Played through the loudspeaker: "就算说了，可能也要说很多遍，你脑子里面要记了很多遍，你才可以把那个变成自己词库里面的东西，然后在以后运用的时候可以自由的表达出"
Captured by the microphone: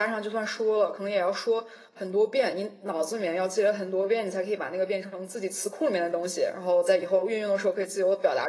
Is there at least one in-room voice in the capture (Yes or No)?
No